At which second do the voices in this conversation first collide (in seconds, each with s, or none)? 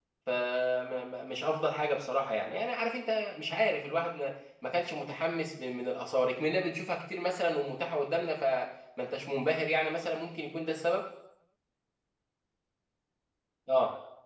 none